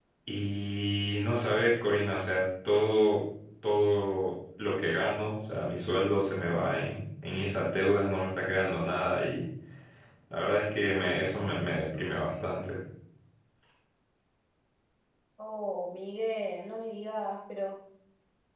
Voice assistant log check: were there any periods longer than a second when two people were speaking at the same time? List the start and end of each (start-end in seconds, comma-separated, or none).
none